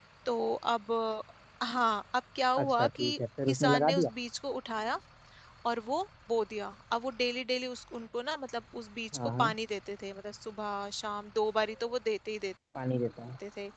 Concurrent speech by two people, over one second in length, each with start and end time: 2.6-4.1

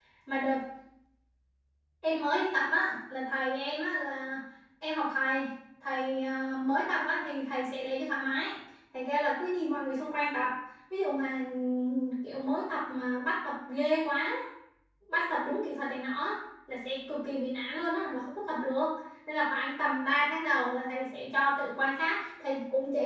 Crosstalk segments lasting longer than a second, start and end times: none

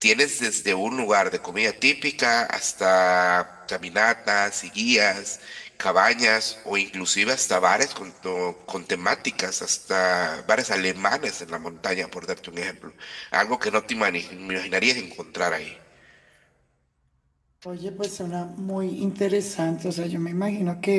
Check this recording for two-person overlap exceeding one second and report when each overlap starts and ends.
none

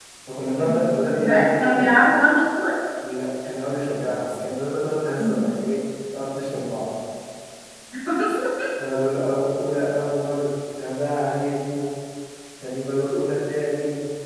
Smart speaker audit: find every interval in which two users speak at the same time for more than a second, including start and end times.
0.6-1.9

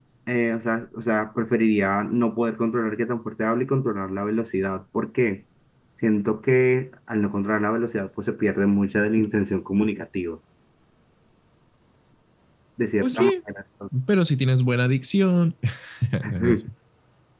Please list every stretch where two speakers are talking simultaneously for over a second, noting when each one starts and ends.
none

